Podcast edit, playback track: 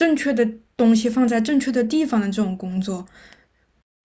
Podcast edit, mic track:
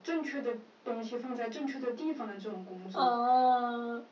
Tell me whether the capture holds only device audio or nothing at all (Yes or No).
No